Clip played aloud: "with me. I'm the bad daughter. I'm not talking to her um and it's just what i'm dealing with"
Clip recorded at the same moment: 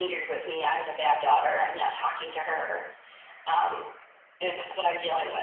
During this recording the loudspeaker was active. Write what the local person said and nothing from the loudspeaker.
none

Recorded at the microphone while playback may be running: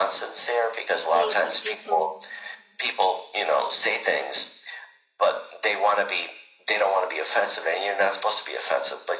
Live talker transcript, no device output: They they told.

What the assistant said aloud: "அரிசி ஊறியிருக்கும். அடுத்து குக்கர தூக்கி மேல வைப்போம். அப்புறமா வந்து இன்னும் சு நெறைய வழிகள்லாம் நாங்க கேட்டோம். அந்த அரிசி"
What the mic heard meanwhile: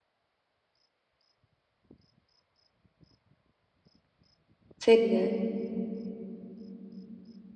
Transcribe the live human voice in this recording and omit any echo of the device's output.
சரிங்க.

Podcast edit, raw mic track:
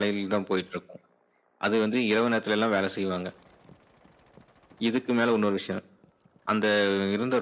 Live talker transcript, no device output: none

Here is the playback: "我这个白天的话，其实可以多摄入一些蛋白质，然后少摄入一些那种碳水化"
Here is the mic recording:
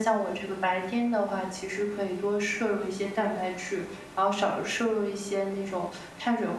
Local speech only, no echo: none

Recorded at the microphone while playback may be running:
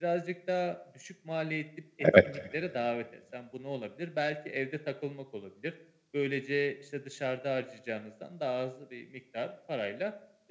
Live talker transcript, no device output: Evet.

